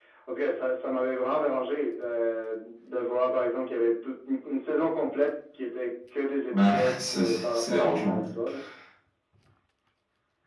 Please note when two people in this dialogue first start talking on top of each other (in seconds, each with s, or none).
6.5 s